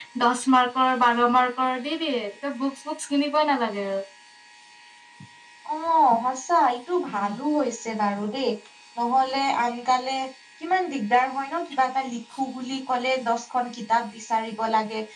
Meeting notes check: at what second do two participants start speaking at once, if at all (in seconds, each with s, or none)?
none